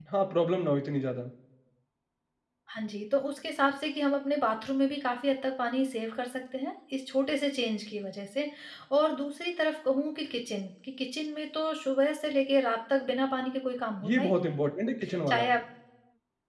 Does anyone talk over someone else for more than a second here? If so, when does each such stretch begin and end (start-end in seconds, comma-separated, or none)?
none